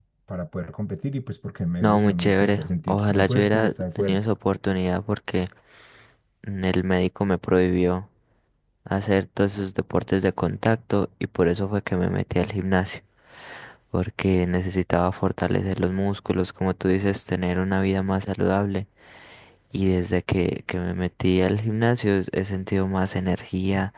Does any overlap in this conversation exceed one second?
Yes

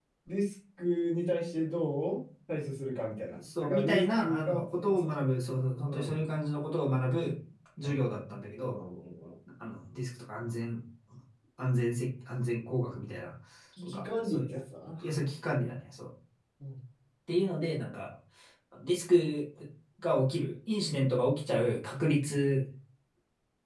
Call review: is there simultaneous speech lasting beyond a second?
Yes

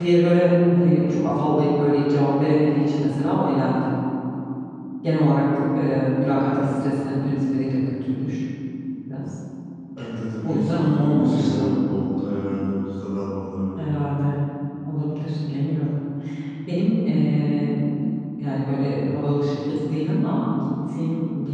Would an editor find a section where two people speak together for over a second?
Yes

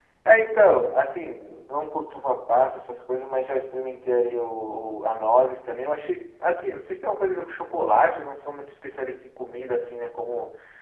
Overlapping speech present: No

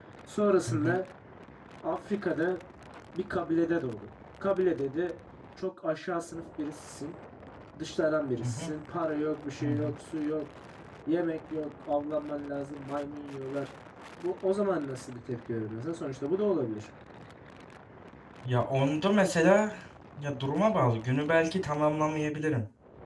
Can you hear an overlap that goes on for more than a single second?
No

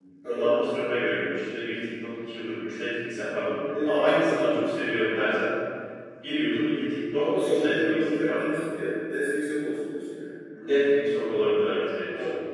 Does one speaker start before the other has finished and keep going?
Yes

